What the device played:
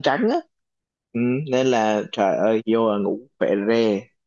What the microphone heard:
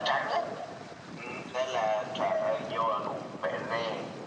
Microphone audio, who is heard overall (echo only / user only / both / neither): echo only